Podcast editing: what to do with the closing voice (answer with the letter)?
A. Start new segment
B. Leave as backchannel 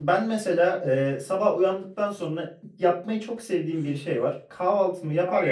B